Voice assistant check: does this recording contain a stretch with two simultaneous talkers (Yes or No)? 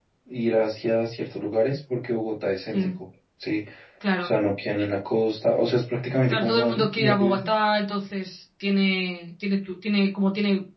Yes